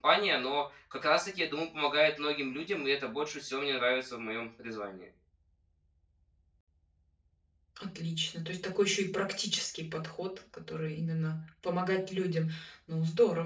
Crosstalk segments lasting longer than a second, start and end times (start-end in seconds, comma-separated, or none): none